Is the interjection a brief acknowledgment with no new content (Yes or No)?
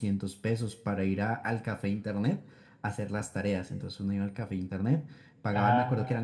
No